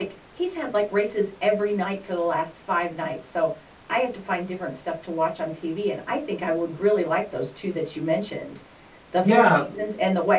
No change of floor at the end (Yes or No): Yes